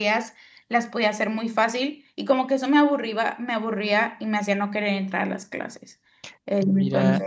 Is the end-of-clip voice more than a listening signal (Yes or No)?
Yes